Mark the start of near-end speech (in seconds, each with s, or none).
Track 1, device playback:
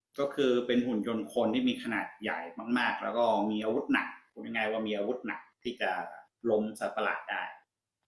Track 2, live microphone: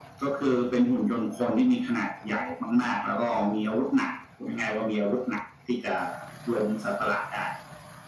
none